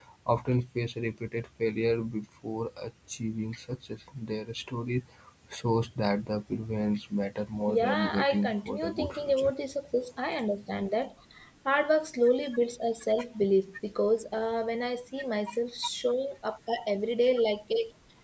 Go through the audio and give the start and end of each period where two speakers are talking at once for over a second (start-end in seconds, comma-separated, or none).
7.7-9.5